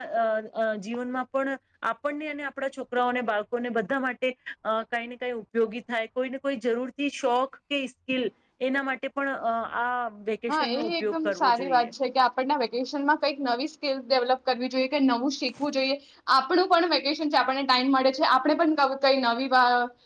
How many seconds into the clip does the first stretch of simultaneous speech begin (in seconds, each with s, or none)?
10.5 s